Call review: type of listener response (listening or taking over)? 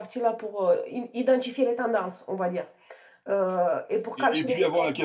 taking over